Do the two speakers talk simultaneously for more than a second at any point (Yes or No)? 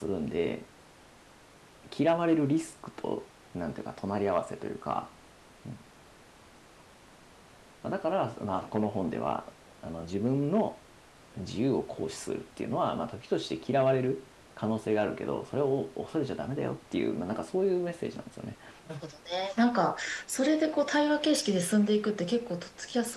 No